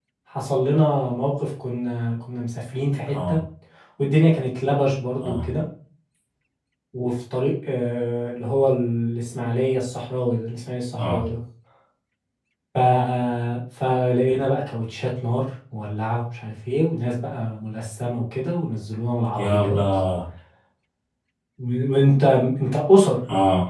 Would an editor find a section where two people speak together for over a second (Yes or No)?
No